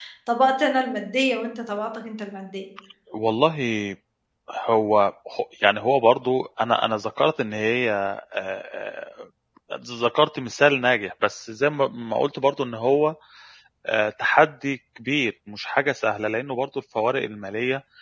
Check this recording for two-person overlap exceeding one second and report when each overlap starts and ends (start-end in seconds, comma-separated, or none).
none